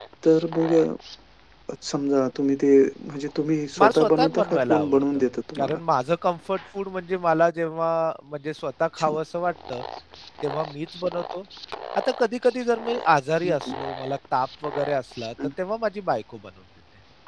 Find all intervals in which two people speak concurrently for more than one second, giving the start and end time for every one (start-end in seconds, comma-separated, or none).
3.8-5.2